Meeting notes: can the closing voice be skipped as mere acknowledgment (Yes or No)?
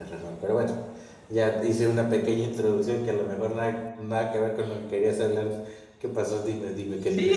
No